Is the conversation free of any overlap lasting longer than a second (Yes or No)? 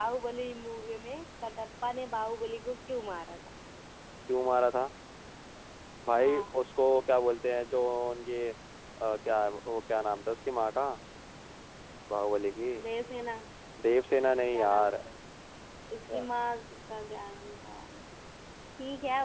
Yes